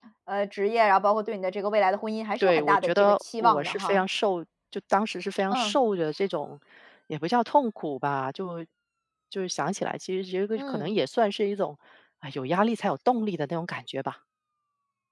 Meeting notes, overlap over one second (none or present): present